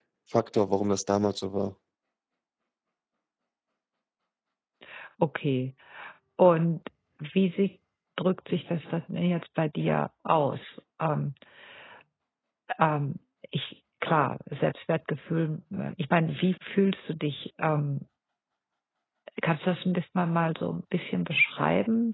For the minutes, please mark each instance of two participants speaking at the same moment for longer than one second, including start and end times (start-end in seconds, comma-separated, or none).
none